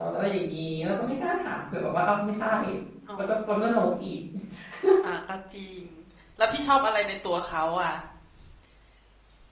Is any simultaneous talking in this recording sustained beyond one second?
No

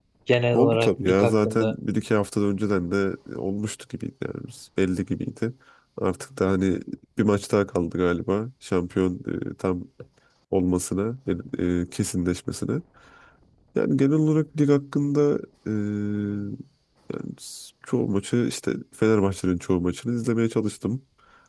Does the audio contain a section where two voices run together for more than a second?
Yes, from 0.5 s

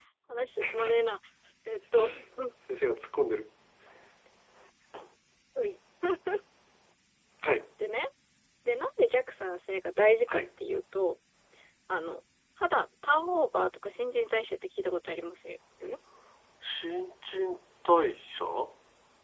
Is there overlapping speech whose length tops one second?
No

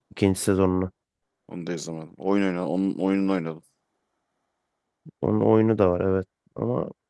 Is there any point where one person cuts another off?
No

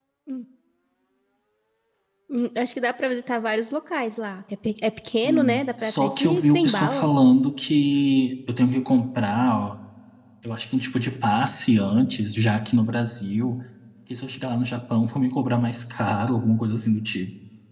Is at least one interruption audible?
Yes, from 5.2 s

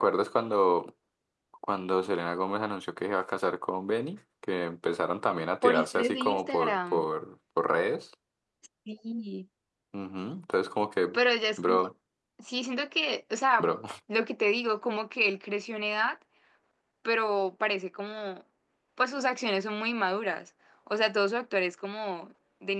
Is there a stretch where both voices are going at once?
Yes, from 5.6 s

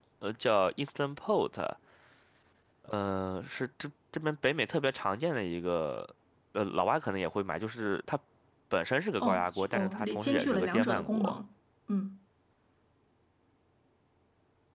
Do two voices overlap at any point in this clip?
Yes, from 9.2 s

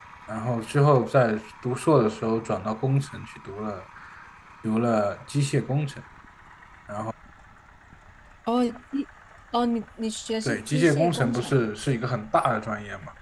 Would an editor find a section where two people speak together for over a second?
Yes, from 10.4 s

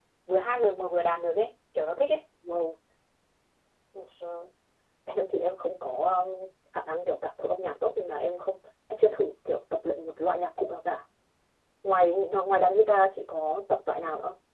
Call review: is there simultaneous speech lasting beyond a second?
No

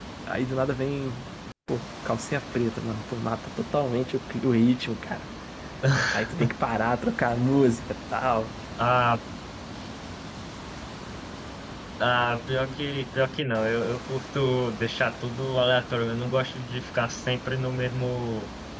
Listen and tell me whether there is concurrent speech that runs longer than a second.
No

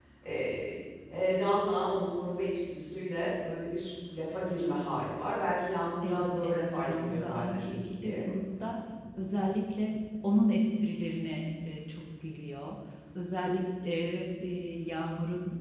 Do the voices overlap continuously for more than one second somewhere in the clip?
Yes, from 6.0 s

